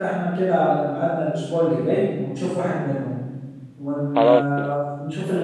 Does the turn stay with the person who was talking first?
Yes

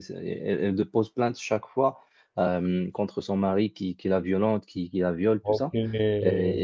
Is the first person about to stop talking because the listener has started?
No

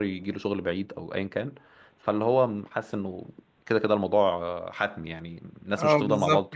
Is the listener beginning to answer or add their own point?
Yes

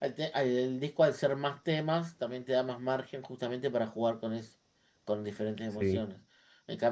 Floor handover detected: No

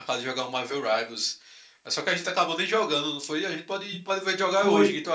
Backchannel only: No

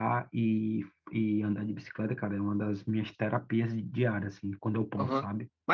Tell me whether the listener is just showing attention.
No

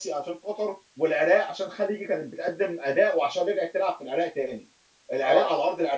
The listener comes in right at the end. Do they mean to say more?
No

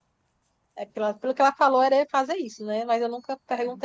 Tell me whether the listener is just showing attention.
Yes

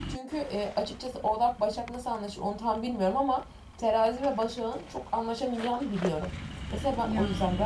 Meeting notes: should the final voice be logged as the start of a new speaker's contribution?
No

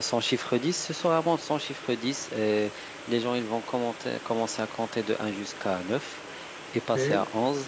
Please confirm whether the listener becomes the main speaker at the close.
No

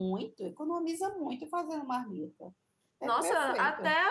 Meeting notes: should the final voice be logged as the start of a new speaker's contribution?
Yes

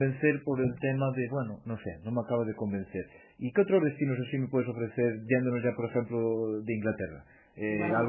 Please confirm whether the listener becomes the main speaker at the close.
No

